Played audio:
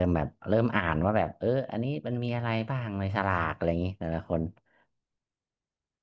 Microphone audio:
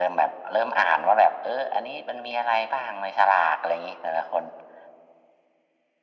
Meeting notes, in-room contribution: none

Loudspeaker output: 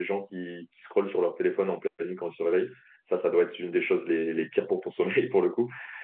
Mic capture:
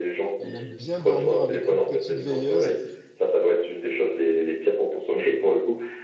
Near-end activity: present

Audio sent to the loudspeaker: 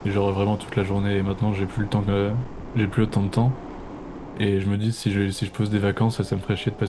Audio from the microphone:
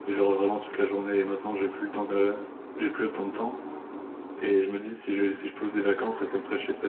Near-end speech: none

